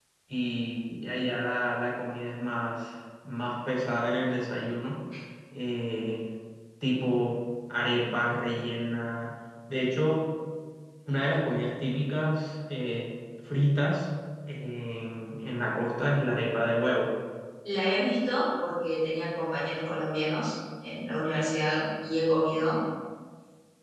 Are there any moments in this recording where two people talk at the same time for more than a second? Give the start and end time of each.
none

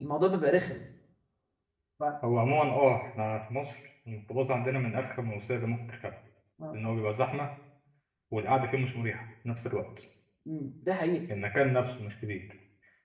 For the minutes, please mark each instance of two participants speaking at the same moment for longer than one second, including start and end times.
none

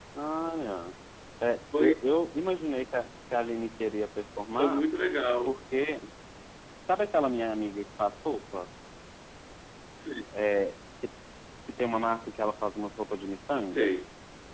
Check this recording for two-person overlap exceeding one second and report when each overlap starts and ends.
none

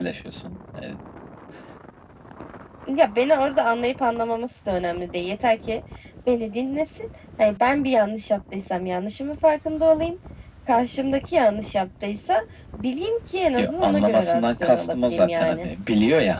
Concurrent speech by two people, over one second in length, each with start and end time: 13.6-15.7

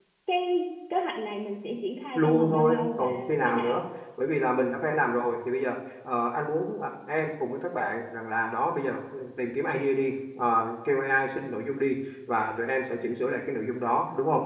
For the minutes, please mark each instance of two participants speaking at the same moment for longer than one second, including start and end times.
2.1-3.8

